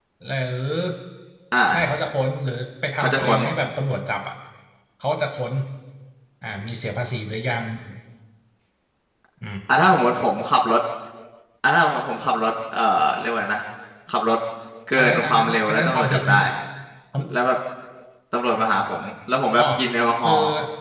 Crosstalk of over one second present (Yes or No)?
Yes